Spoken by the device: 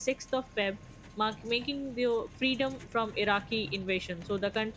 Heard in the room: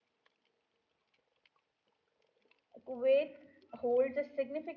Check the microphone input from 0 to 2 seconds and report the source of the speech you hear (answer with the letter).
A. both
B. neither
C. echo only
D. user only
B